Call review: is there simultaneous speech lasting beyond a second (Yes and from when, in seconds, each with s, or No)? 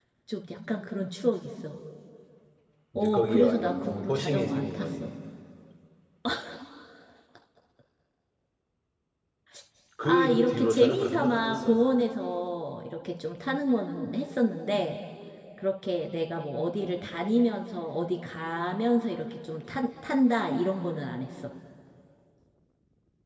Yes, from 3.0 s